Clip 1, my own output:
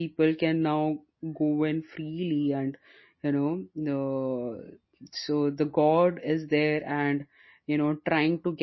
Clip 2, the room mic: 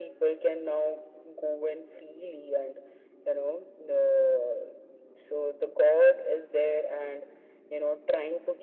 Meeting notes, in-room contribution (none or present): none